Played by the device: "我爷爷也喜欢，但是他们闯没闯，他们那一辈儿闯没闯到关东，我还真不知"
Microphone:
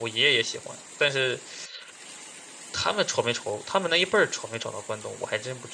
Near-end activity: none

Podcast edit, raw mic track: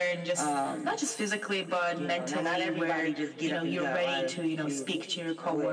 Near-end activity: none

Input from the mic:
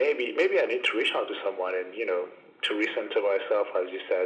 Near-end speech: none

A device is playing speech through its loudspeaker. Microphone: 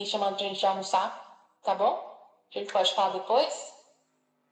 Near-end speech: none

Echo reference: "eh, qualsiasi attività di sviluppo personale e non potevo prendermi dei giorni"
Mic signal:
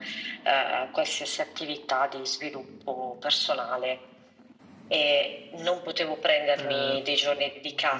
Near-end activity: present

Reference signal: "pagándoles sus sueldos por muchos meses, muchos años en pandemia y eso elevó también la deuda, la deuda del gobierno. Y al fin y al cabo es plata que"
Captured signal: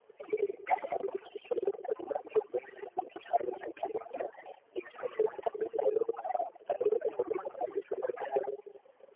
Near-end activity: none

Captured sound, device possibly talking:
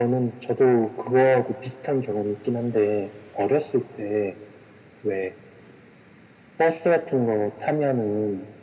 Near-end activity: none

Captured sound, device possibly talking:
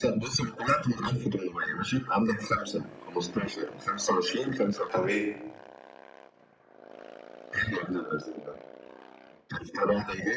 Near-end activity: present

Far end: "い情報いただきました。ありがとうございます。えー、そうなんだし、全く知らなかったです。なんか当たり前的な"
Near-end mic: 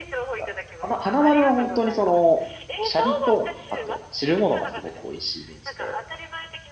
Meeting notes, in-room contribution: present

